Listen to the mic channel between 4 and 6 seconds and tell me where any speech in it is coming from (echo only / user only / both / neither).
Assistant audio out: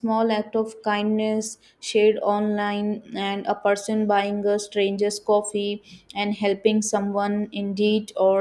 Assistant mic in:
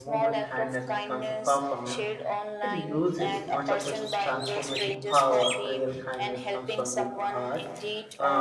both